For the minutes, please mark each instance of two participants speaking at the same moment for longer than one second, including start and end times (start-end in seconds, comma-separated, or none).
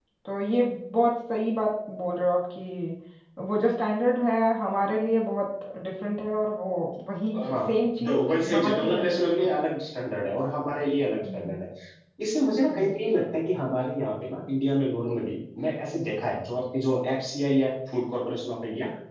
8.1-9.5